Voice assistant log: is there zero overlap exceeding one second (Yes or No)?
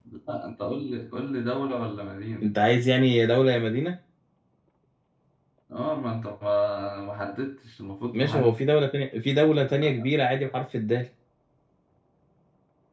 Yes